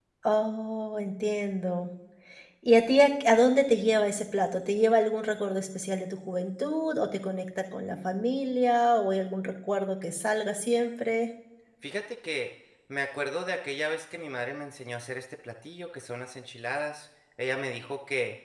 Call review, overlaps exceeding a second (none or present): none